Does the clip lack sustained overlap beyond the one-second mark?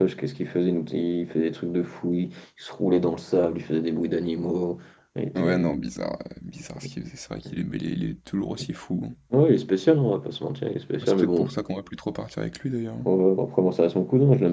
Yes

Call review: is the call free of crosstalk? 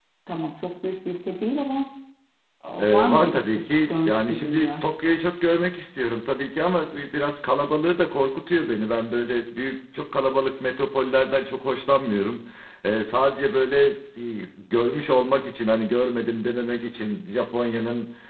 No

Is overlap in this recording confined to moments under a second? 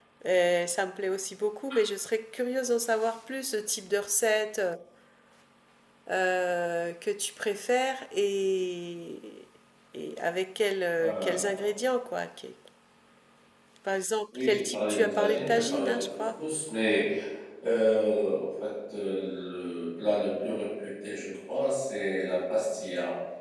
No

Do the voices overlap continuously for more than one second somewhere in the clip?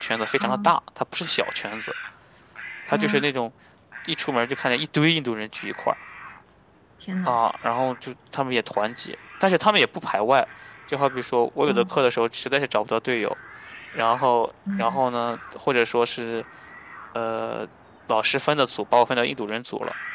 No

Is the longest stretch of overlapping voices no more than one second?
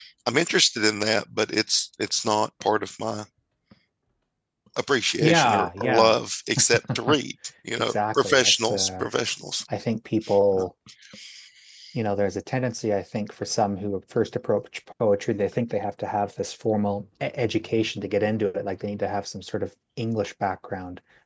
No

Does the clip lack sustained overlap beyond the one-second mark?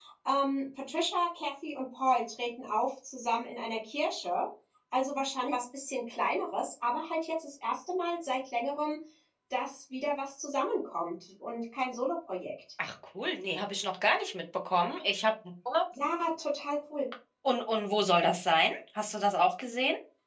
Yes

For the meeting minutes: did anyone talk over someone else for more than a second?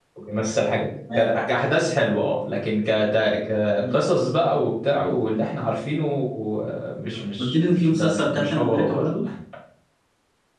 Yes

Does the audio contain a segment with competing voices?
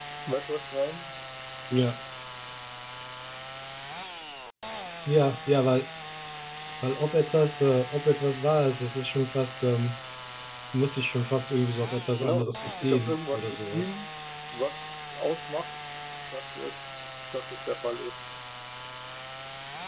Yes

